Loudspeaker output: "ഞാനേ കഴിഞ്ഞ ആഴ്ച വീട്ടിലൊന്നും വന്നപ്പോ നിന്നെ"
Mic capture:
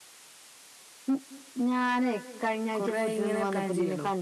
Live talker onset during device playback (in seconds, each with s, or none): 2.8 s